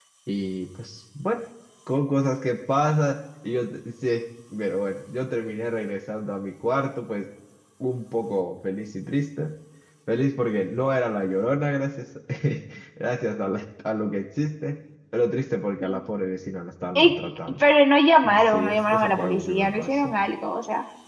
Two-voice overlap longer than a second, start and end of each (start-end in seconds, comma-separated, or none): 18.2-20.2